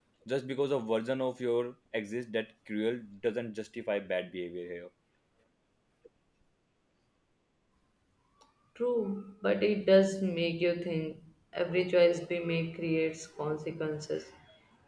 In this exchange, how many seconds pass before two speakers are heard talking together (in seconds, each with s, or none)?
none